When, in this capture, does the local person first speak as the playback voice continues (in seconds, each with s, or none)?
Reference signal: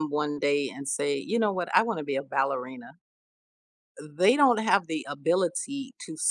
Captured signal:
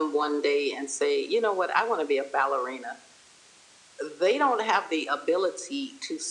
none